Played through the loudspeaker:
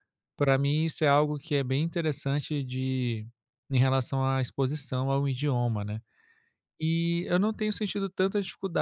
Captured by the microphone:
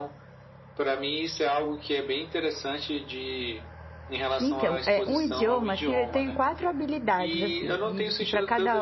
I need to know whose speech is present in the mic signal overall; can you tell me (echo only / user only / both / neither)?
both